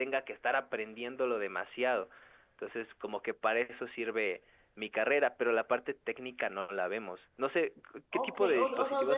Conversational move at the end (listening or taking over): taking over